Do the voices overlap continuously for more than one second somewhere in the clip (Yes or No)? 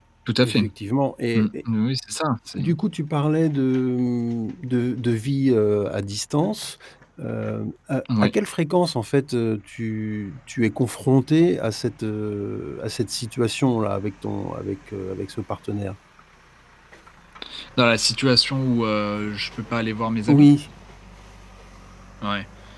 No